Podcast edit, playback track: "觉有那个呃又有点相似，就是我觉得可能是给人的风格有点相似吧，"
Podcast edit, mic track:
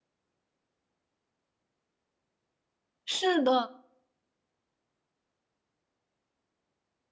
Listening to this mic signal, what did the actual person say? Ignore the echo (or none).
是的，